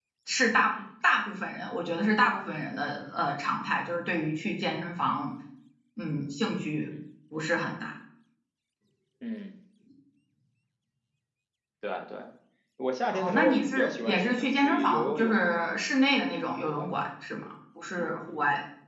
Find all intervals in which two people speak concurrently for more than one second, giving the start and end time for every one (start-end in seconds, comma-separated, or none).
13.1-15.8